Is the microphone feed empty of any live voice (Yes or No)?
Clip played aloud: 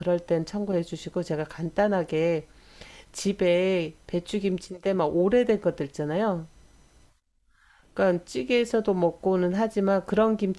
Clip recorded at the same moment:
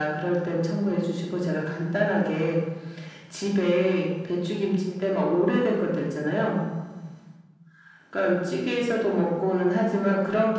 Yes